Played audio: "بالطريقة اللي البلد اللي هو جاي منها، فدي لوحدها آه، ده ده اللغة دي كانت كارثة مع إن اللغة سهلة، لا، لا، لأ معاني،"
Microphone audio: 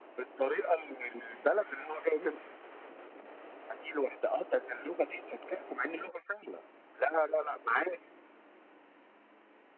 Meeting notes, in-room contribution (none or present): none